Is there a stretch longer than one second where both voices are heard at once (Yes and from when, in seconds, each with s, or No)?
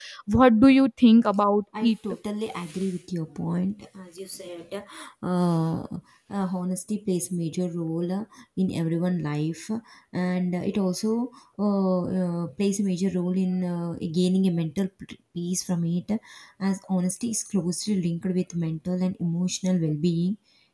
No